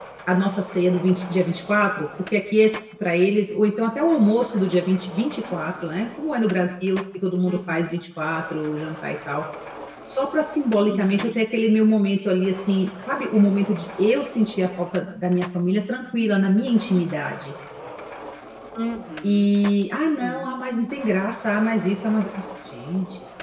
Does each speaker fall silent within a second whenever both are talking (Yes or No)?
Yes